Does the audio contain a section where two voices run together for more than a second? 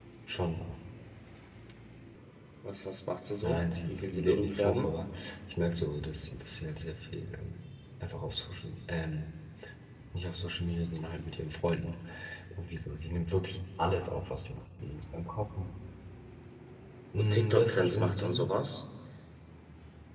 Yes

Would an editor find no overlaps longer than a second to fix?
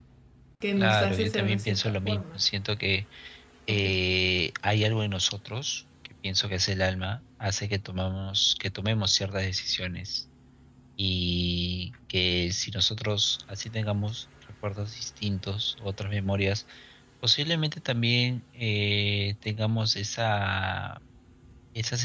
No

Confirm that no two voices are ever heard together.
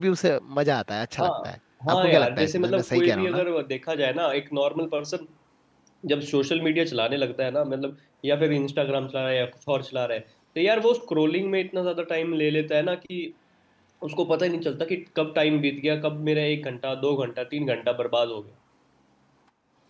No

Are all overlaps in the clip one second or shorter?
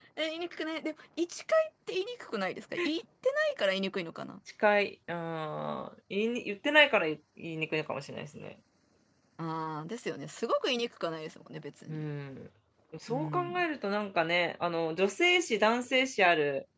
Yes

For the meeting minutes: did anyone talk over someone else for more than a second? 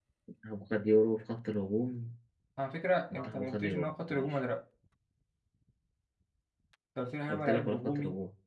Yes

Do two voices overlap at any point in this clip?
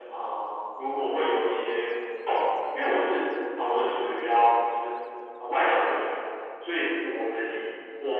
No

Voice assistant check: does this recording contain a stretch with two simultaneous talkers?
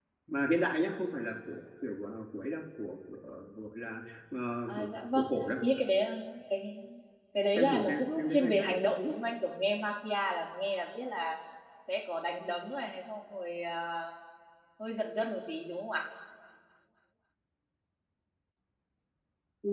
Yes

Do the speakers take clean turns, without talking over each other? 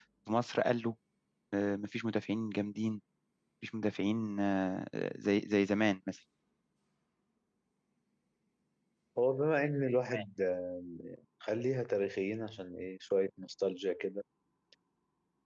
Yes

